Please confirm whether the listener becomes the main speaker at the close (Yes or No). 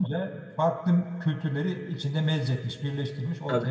Yes